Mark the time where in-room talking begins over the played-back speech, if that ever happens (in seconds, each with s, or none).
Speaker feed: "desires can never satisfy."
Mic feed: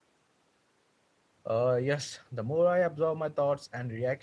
1.5 s